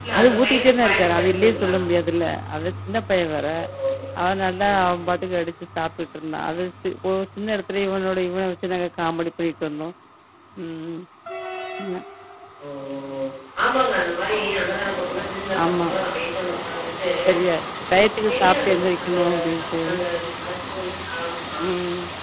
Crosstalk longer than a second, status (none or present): present